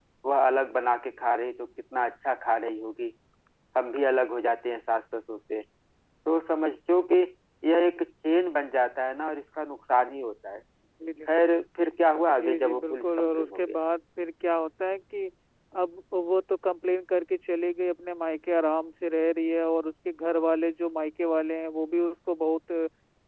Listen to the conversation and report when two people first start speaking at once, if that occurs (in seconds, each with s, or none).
12.2 s